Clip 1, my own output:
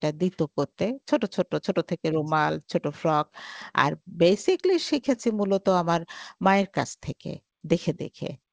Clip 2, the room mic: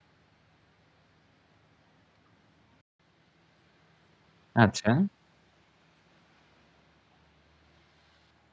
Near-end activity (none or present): present